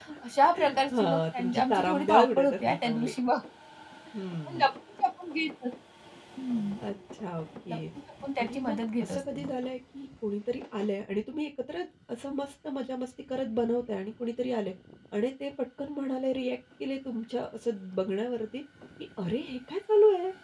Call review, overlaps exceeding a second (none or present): present